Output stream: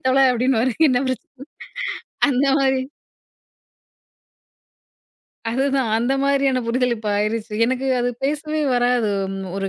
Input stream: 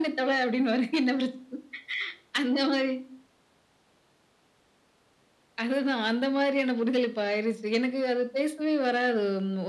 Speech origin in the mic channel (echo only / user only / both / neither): echo only